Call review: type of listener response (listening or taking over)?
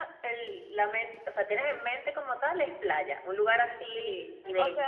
taking over